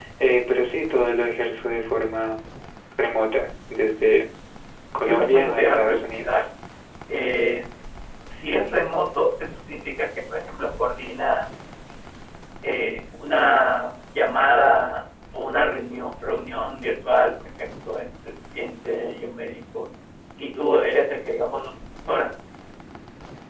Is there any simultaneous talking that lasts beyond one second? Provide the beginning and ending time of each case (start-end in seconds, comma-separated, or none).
5.1-6.4